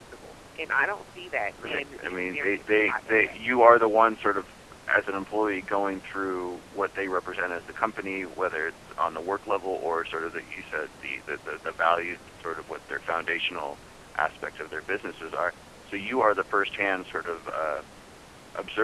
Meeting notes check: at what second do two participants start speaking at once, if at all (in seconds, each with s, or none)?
1.6 s